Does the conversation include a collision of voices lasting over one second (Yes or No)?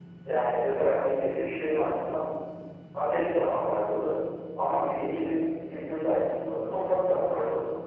No